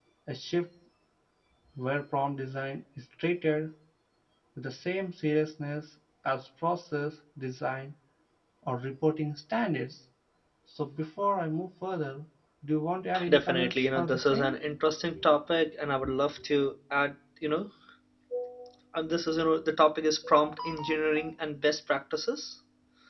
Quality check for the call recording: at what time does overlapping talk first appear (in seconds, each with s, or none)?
13.3 s